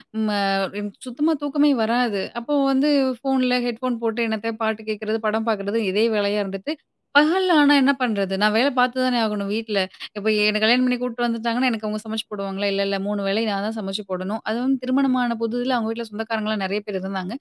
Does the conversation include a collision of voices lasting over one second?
No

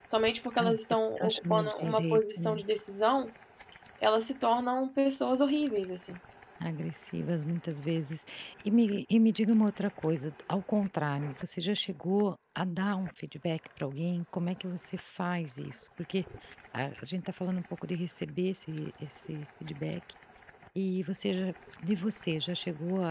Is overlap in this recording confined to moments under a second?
No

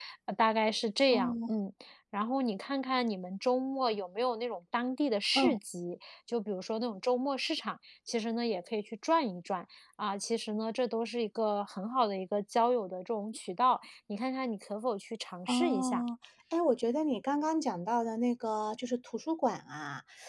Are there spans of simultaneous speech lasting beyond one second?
No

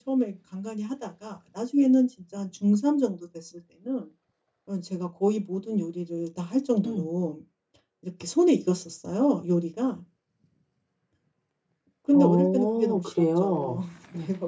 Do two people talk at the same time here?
Yes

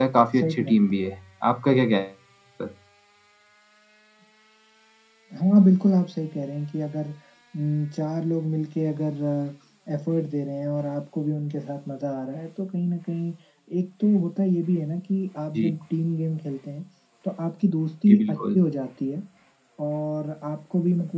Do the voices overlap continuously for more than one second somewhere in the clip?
No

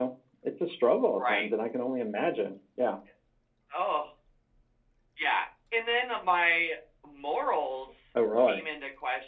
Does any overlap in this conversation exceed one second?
No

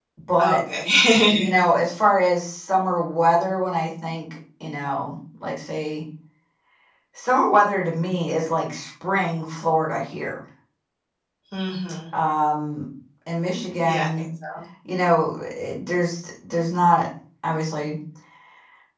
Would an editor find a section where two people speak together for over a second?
No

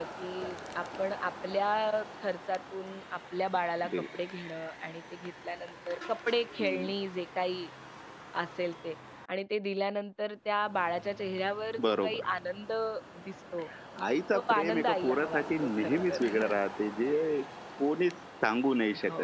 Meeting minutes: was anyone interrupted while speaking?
Yes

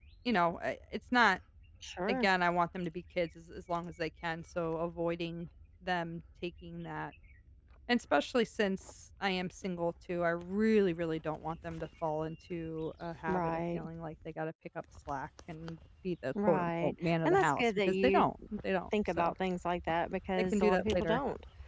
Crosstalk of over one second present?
Yes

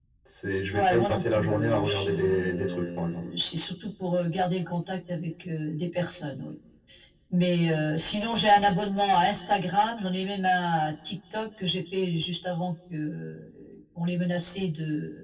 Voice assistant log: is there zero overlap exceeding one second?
No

